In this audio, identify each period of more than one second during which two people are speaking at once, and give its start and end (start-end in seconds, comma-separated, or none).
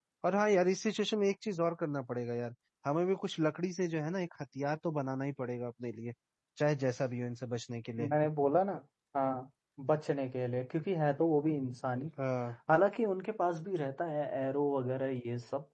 none